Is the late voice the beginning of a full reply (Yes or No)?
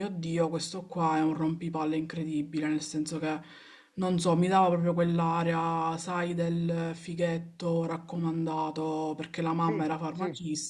No